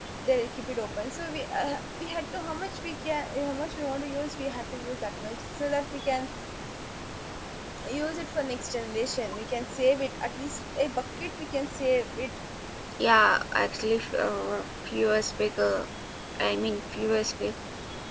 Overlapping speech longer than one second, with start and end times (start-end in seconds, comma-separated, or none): none